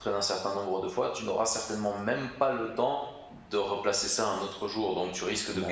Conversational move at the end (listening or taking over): listening